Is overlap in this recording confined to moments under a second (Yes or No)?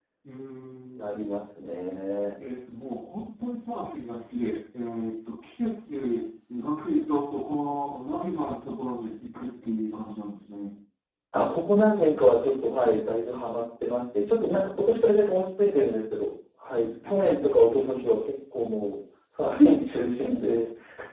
Yes